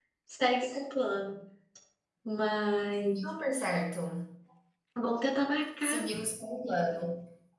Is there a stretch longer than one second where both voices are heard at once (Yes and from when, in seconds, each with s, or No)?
No